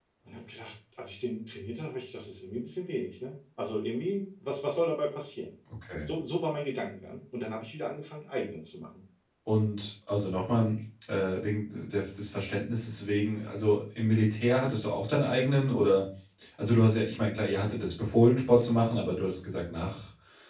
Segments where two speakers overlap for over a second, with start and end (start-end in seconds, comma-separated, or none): none